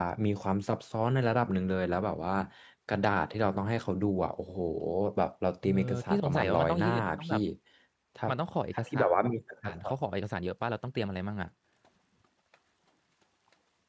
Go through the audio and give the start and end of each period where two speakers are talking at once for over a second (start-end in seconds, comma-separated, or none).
5.6-7.4